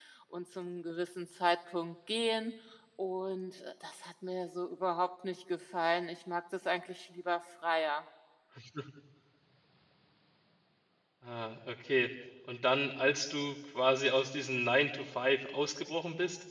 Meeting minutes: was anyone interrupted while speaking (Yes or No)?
No